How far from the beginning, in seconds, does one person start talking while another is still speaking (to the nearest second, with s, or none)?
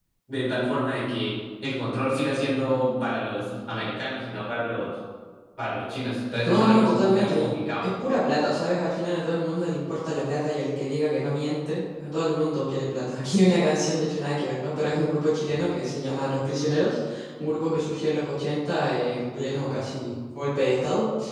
6 s